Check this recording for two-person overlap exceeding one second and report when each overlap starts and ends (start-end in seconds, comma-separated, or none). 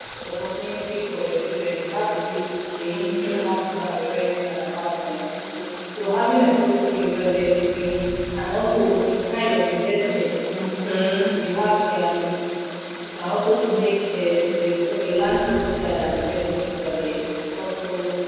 none